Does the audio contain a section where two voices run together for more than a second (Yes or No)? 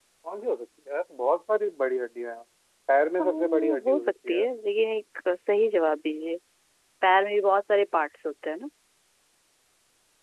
Yes